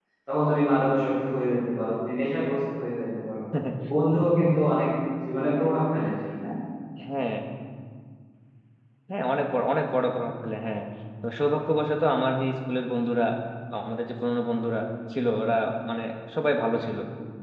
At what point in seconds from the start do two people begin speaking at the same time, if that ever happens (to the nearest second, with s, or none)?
none